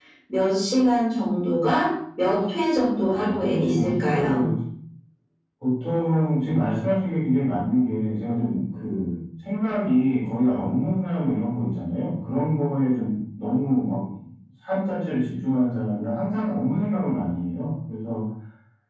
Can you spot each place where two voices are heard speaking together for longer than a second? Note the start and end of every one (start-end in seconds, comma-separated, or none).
3.1-4.4